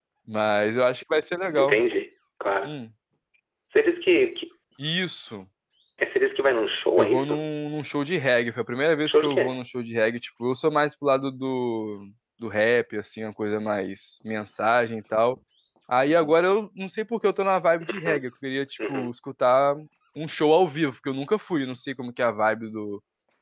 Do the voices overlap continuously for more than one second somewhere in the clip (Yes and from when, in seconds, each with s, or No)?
No